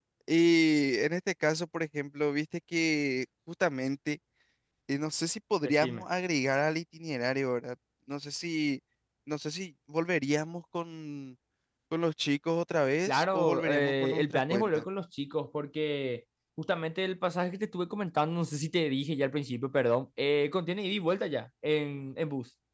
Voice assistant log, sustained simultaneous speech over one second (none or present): present